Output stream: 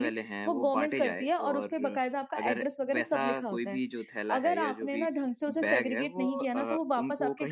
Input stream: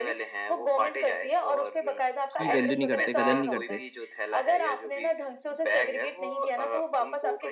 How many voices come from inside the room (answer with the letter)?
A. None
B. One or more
B